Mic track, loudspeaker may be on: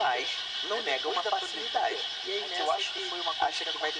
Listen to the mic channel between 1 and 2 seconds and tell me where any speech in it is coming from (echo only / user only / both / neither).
echo only